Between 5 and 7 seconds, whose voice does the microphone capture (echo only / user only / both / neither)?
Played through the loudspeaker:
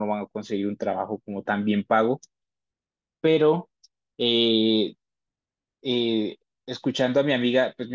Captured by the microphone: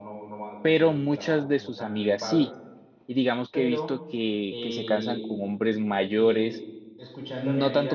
both